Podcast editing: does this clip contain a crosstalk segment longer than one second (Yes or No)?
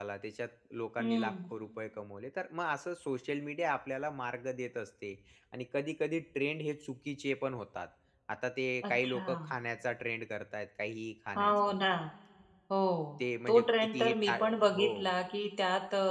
Yes